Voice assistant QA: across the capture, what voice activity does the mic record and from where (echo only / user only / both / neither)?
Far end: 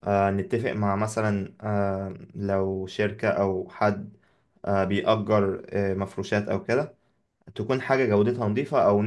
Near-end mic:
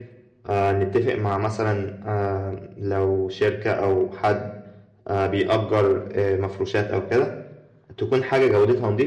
echo only